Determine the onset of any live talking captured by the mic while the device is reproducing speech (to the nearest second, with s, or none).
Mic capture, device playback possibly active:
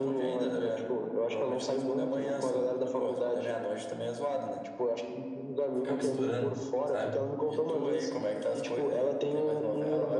6 s